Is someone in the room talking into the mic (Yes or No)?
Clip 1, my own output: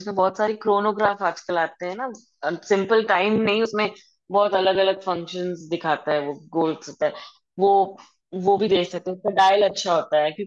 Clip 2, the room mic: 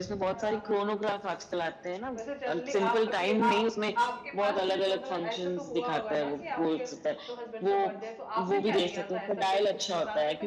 Yes